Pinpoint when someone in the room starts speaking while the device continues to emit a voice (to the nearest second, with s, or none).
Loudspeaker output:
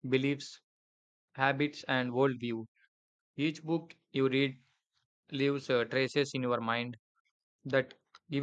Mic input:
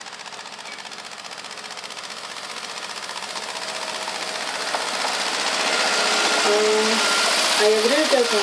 6 s